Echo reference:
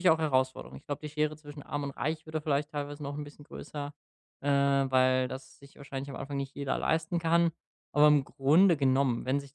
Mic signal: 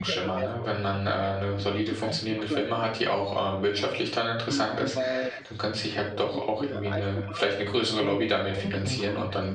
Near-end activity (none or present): present